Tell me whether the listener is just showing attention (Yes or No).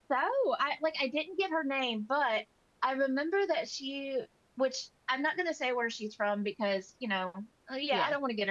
Yes